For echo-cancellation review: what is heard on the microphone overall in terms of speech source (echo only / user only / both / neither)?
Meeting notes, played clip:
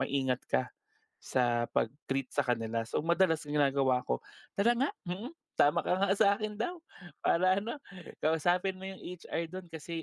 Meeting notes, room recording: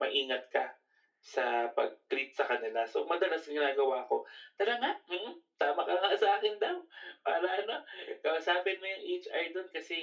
echo only